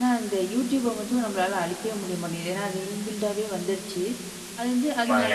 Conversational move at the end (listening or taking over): listening